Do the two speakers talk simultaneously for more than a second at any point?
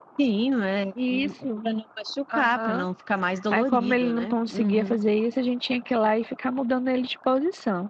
Yes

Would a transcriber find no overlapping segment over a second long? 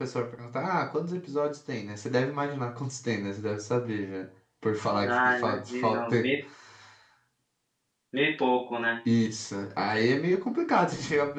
No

